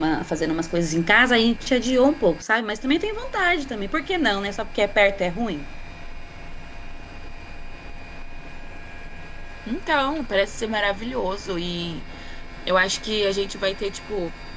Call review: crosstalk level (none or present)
none